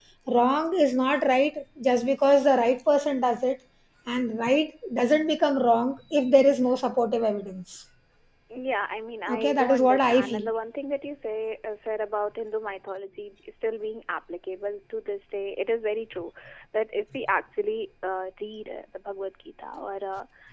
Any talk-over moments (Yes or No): Yes